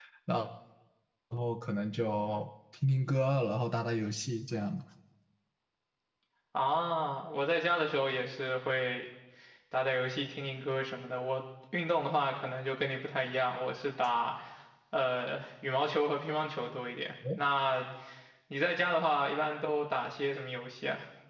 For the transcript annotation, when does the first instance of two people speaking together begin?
none

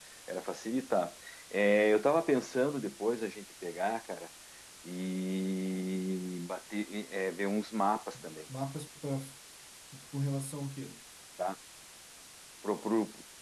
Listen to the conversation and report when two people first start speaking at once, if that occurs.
none

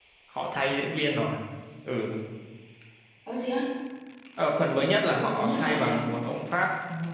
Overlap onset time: 5 s

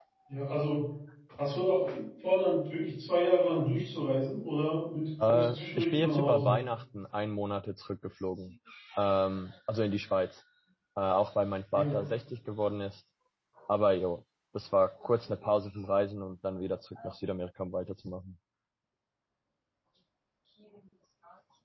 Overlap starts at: 5 s

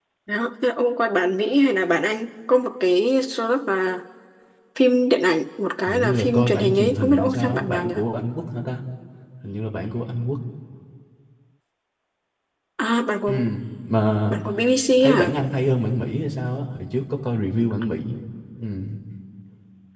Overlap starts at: 6 s

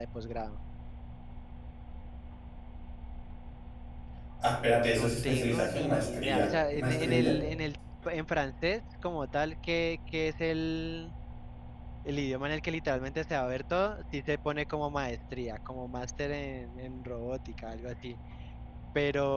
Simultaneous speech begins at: 5 s

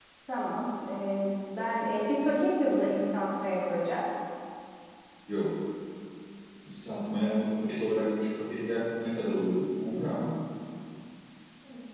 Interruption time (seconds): none

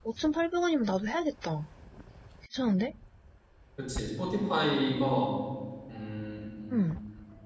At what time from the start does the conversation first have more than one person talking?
none

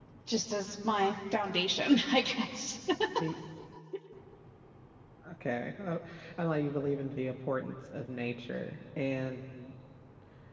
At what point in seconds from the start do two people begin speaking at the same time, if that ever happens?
none

